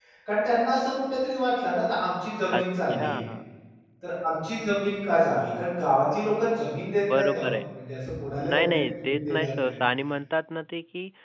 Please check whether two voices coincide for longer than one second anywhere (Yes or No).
Yes